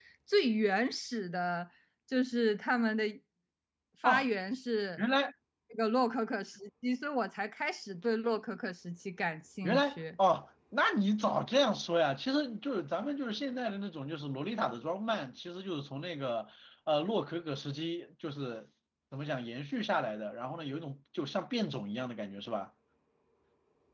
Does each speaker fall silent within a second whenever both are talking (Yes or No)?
Yes